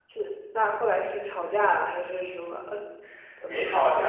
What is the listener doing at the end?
taking over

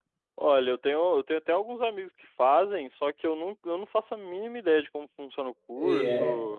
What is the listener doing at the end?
taking over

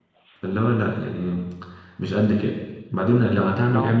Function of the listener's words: listening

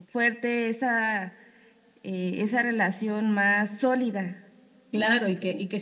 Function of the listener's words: taking over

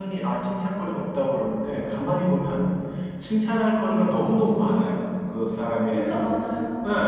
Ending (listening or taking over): listening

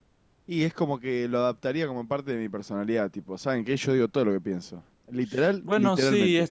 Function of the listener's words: taking over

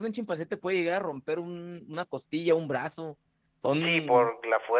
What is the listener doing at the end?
taking over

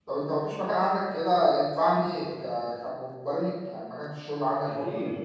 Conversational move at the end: taking over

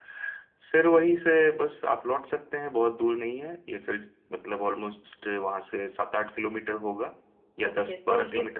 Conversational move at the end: taking over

